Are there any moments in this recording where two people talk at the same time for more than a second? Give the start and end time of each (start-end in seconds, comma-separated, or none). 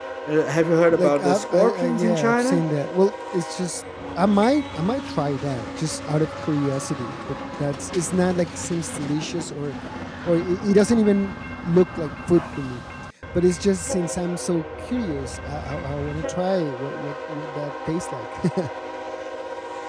1.0-2.6